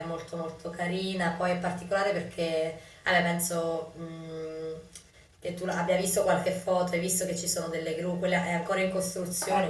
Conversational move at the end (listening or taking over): listening